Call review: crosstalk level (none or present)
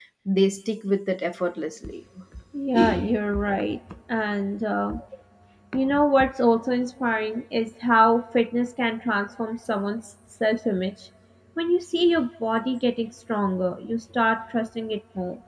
none